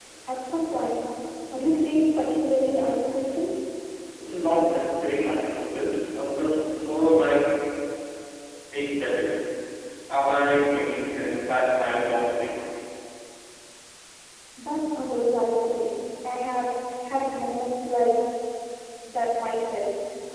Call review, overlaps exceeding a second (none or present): none